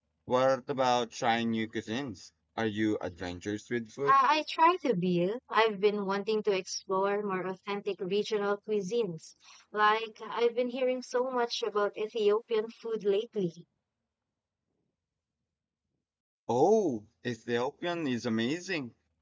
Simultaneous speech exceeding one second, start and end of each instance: none

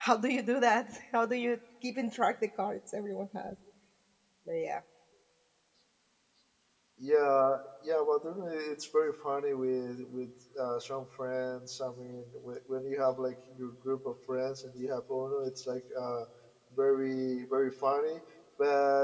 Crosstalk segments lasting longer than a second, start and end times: none

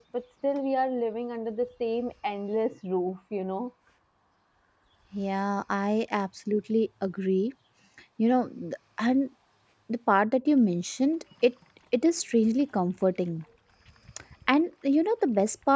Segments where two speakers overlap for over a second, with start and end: none

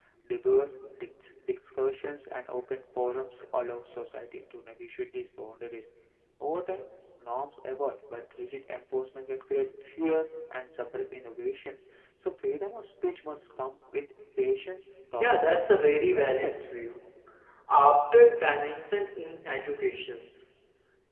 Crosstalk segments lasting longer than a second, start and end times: 15.2-16.5

